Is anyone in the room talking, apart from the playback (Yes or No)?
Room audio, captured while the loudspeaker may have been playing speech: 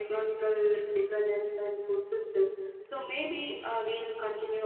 No